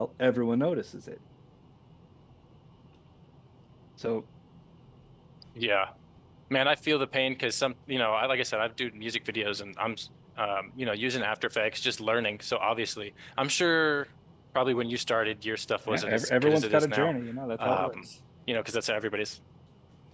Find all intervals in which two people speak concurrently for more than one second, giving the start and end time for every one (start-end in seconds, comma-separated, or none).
15.9-17.1